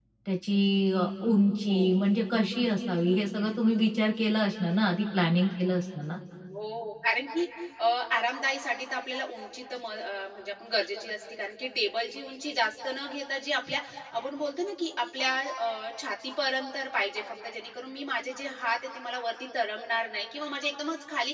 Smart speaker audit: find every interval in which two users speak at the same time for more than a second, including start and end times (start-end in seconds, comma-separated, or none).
none